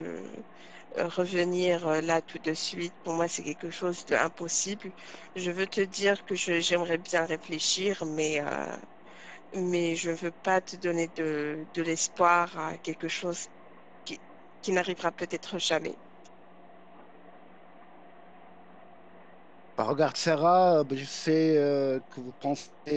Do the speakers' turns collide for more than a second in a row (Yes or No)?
No